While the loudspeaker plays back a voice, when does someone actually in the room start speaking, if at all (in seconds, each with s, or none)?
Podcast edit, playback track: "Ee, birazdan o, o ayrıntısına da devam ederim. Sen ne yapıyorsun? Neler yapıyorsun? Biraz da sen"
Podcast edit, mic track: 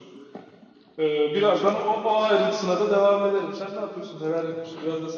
none